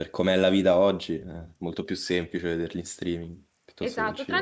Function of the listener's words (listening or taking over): taking over